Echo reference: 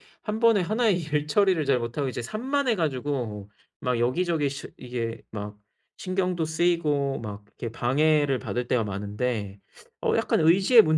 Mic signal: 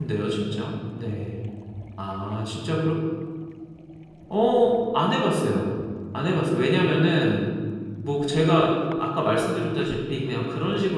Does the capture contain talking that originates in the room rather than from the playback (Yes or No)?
Yes